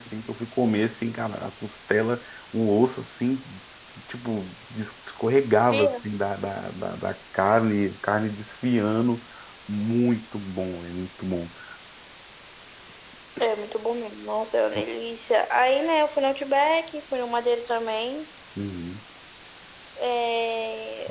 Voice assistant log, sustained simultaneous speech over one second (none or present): none